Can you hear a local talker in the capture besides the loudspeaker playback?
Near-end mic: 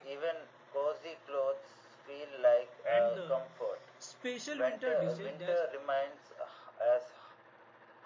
Yes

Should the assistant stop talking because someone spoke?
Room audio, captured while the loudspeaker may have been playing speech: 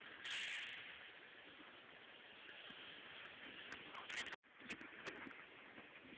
No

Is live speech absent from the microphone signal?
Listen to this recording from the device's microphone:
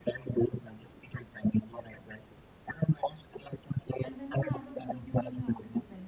No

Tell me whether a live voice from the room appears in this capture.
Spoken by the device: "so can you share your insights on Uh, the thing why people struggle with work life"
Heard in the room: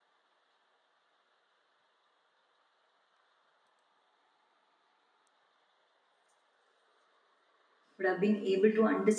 Yes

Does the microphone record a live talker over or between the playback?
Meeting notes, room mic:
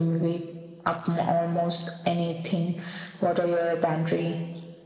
No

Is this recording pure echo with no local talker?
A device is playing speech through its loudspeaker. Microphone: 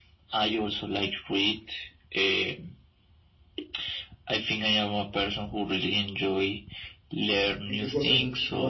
No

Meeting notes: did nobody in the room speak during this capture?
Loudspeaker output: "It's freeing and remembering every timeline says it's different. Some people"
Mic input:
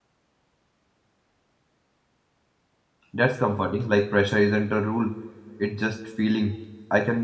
No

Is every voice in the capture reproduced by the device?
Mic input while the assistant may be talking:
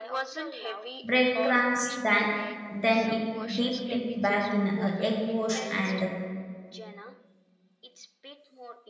No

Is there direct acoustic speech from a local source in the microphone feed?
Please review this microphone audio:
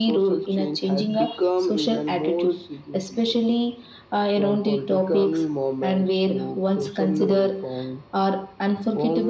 No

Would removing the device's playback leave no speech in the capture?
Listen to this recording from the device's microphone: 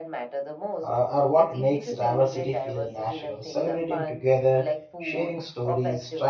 No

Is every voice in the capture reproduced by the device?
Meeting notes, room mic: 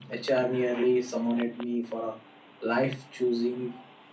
Yes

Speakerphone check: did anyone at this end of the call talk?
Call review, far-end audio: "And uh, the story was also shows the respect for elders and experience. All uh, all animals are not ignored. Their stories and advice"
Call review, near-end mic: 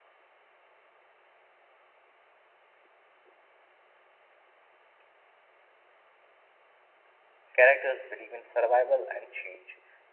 Yes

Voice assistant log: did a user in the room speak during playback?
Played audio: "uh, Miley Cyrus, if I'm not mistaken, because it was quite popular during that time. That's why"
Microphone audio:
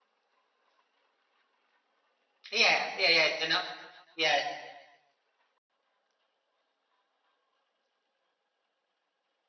Yes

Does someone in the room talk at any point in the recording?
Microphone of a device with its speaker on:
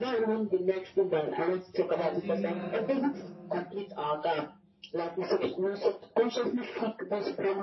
Yes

